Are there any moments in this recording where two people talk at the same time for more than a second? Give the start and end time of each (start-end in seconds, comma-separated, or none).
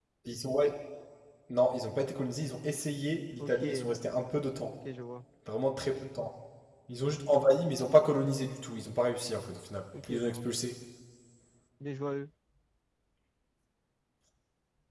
none